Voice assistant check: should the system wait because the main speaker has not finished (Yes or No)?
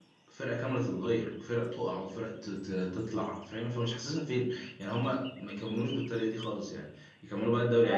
No